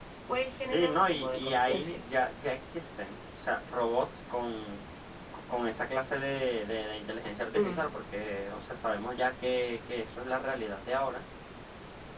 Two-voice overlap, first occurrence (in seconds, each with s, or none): 0.7 s